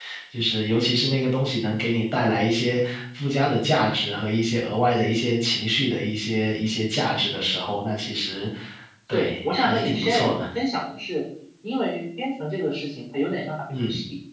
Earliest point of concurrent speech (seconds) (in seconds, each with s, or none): 9.1 s